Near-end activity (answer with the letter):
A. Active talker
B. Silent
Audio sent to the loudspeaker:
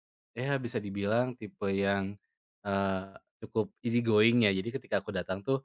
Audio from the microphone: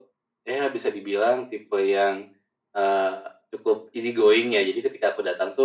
B